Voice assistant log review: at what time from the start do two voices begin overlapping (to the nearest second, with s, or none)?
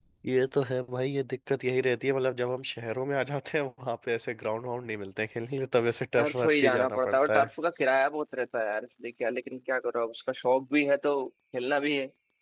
6 s